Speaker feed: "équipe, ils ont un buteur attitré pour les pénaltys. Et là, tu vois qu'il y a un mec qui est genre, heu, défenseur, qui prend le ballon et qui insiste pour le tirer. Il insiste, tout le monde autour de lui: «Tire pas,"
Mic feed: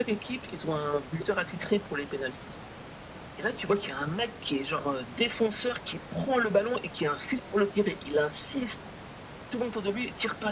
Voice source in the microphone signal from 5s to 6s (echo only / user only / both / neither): echo only